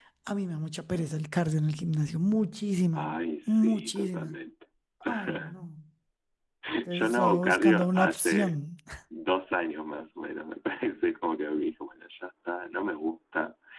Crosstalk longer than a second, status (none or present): present